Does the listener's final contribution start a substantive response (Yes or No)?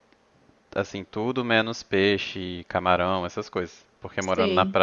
No